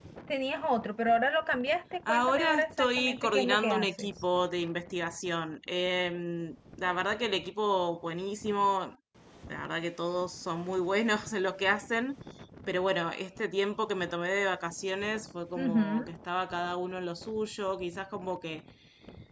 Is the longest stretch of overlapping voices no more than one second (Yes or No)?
No